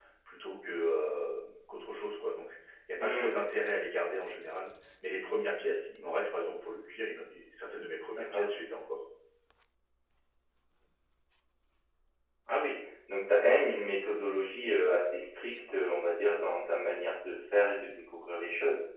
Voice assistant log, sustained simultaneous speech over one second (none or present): none